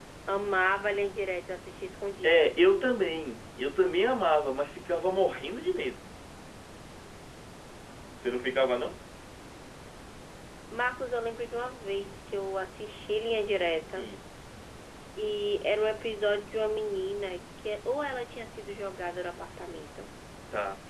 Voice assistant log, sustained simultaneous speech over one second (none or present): none